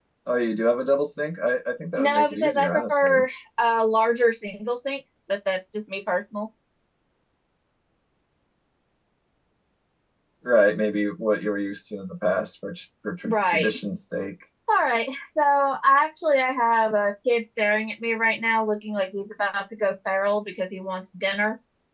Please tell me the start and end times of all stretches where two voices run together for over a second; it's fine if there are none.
2.0-3.2

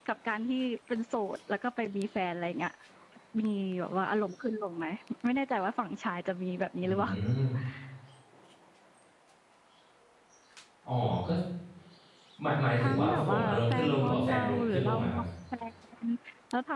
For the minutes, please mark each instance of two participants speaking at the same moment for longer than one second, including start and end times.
12.8-15.2

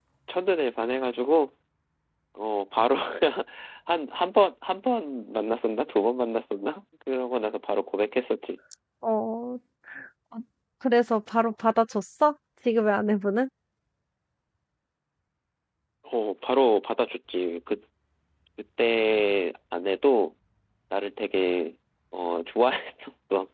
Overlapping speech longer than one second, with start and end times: none

